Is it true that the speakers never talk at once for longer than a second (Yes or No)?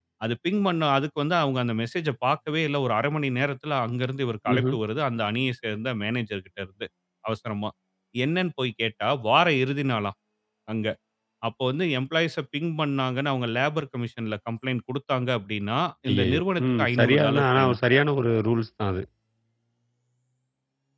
No